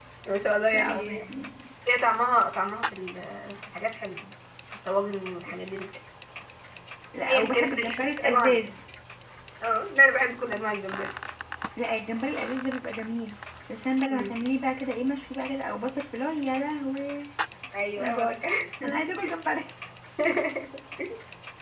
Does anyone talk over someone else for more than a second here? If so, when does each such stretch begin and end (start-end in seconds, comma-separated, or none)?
7.2-8.6